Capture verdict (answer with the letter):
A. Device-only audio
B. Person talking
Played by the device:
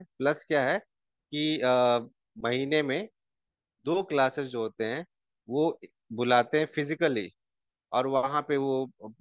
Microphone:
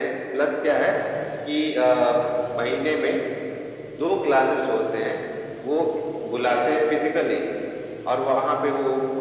A